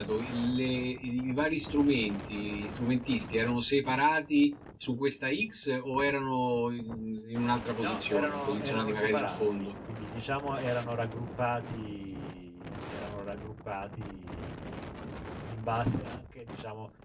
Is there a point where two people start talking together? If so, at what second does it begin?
8 s

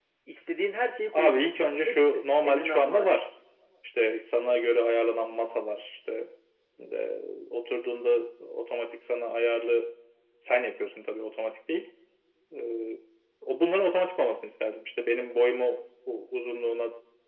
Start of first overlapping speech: 1 s

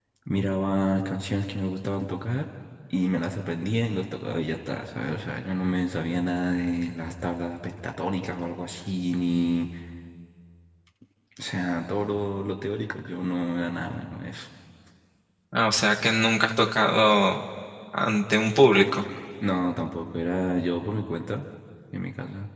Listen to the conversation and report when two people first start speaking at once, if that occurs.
none

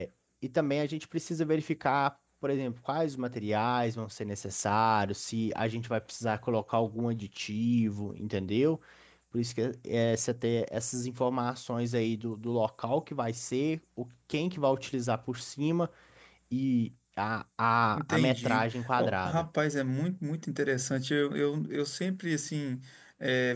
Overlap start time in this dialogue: 18 s

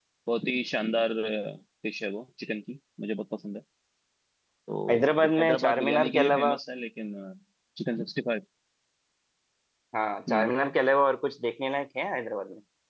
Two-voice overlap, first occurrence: 5 s

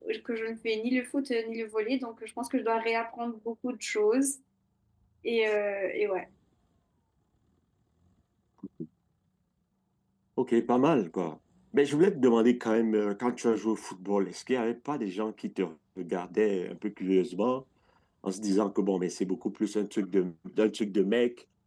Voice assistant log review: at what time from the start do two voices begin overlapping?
none

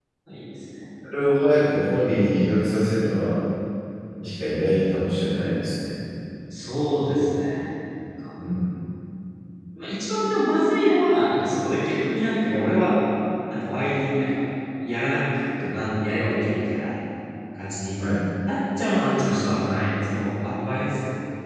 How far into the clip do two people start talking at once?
none

